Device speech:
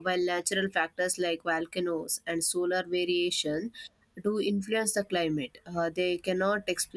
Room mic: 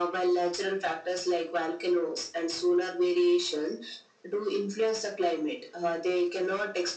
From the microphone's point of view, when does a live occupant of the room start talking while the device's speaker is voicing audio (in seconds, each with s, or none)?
none